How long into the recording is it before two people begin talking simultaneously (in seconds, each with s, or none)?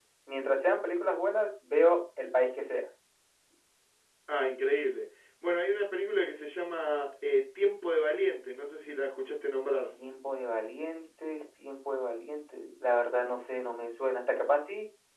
none